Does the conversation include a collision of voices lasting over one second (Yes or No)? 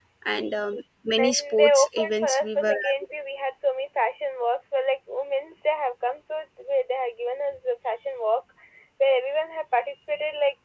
Yes